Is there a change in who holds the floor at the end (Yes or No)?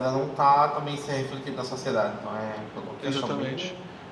Yes